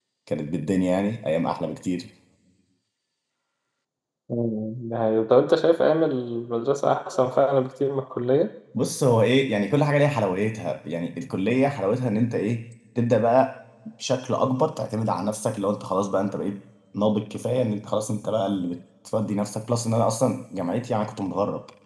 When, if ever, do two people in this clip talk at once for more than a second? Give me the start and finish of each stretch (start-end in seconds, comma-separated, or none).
none